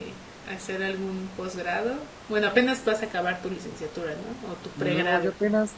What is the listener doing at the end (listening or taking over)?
taking over